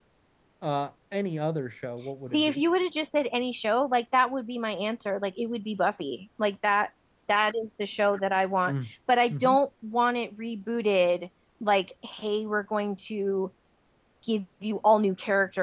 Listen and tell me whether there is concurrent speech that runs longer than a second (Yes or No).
No